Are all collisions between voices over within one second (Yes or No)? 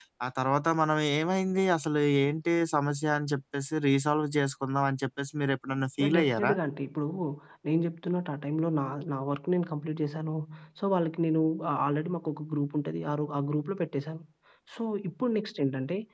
Yes